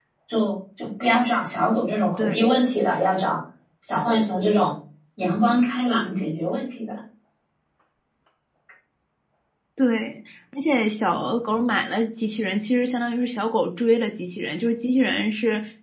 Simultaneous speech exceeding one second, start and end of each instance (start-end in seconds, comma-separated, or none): none